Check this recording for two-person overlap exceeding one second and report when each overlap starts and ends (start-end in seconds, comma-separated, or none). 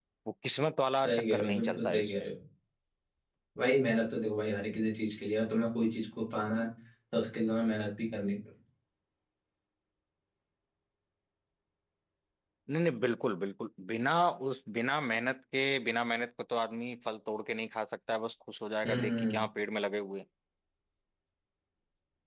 1.0-2.3